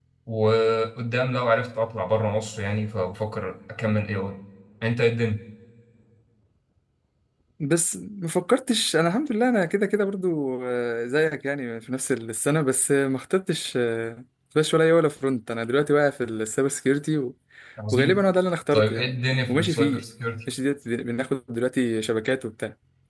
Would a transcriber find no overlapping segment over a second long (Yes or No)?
Yes